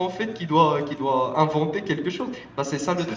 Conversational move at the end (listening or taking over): taking over